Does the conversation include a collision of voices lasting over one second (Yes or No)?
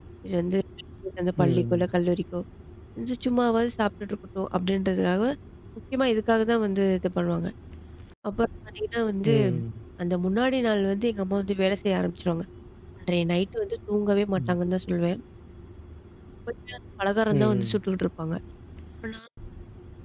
No